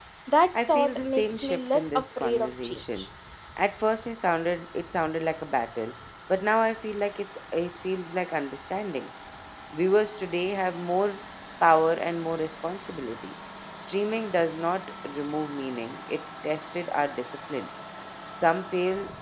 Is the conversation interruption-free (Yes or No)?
No